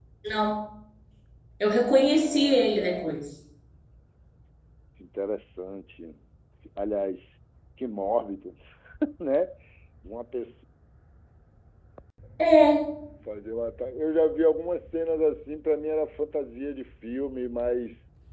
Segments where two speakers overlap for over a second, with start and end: 1.9-3.1

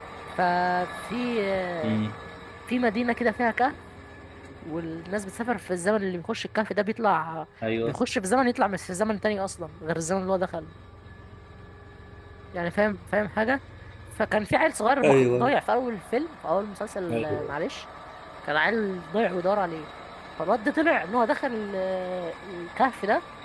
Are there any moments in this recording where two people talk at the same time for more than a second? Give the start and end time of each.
none

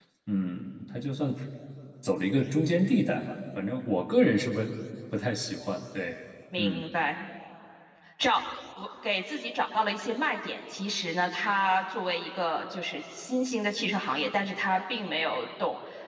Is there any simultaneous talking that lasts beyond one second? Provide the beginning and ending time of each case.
none

